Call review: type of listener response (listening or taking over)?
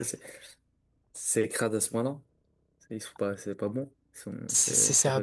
taking over